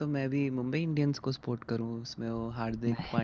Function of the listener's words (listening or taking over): listening